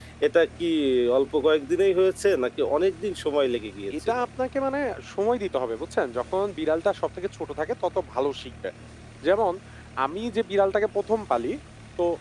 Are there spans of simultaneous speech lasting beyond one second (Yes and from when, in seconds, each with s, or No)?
No